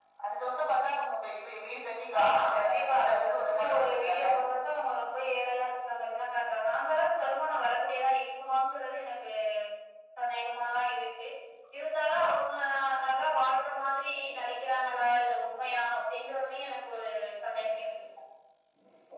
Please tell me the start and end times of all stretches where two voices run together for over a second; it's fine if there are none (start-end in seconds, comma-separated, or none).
2.2-4.3